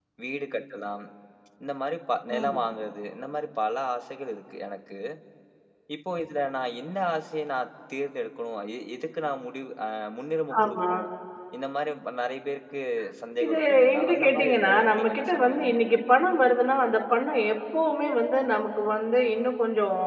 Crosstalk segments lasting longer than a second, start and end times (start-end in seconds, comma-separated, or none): 13.4-15.8